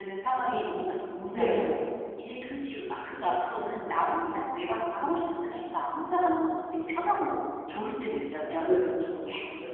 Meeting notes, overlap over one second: none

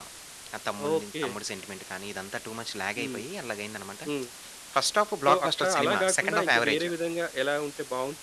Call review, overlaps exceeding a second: present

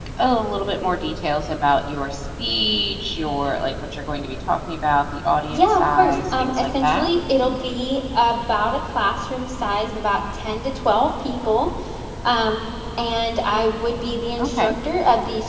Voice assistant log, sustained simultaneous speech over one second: present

